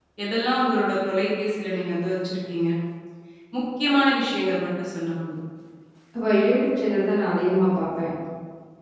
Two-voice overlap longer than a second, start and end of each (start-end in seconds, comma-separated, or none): none